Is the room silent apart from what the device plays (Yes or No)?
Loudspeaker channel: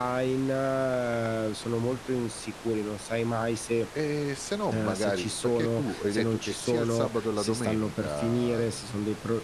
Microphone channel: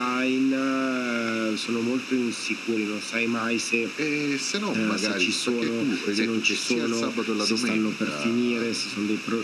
Yes